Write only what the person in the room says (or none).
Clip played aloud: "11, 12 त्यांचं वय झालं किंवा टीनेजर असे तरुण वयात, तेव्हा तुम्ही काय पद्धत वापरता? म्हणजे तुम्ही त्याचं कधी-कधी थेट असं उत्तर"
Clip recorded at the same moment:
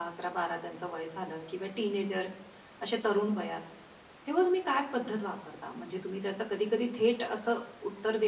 none